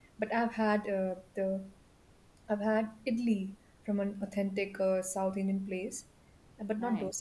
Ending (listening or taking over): listening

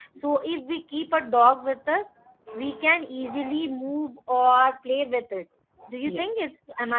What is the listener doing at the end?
taking over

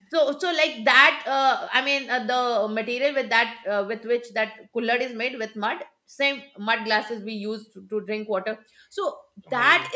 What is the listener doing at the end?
listening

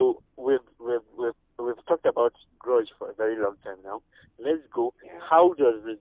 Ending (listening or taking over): listening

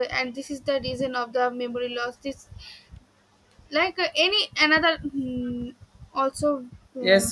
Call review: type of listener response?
taking over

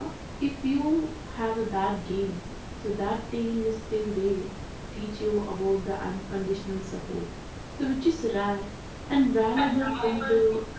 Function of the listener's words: listening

